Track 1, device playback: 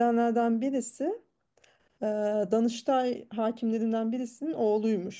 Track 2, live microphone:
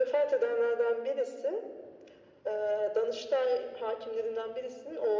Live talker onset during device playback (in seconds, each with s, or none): none